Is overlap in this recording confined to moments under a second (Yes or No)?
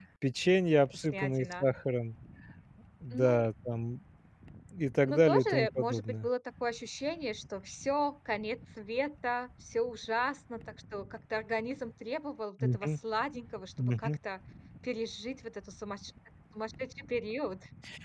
No